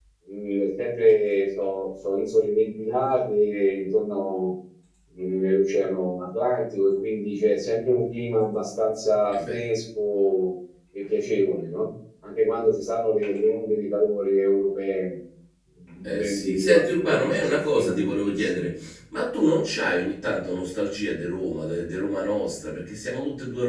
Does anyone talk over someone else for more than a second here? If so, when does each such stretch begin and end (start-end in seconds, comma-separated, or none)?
16.0-18.7